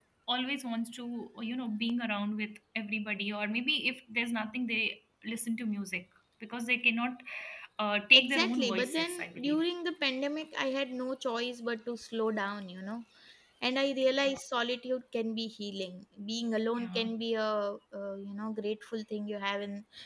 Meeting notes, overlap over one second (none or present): present